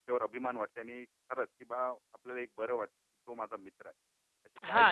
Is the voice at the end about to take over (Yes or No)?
Yes